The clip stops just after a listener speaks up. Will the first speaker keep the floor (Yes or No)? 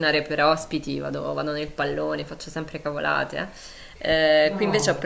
Yes